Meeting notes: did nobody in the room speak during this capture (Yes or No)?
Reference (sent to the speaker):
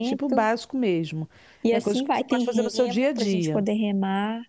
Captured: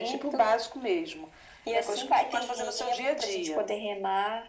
Yes